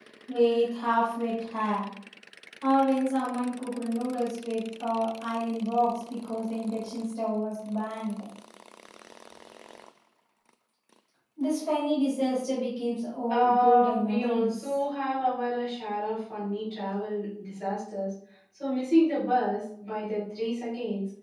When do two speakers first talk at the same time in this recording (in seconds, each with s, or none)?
13.3 s